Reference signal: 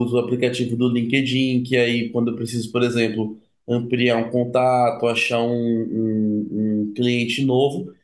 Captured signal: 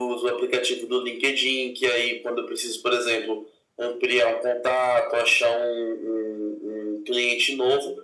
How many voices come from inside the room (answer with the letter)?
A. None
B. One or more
A